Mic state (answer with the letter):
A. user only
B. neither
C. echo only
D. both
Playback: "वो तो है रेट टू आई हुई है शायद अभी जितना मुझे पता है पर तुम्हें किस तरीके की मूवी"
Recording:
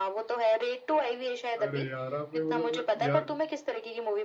D